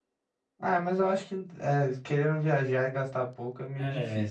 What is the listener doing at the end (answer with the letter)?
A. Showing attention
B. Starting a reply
B